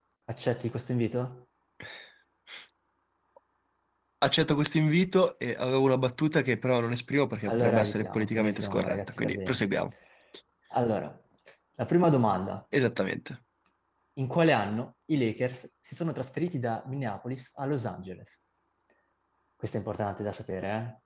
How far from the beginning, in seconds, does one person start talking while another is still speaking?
7.5 s

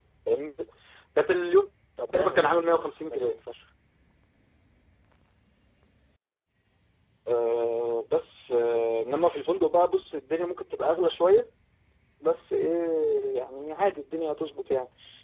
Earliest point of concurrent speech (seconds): 2.1 s

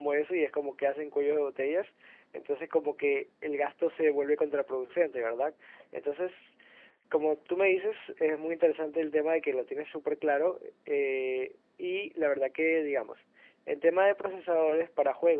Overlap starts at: none

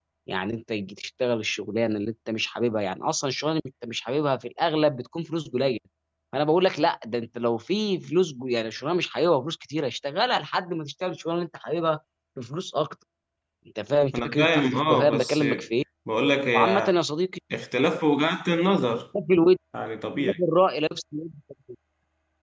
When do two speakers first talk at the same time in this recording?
14.2 s

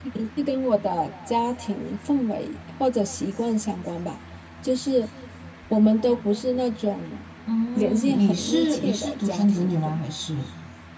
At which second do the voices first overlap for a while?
7.8 s

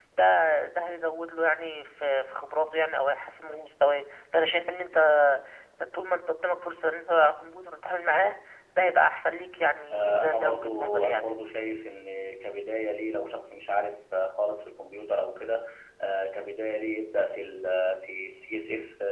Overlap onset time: 9.9 s

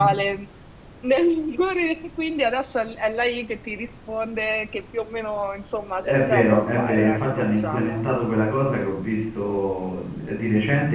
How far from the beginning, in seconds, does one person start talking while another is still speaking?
6.0 s

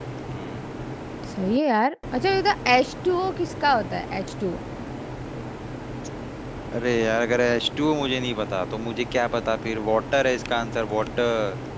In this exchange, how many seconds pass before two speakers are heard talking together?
none

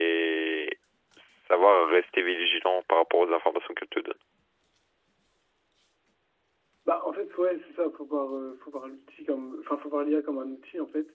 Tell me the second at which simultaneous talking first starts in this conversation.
none

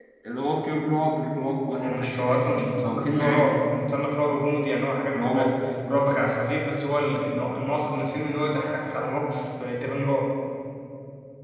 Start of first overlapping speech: 1.7 s

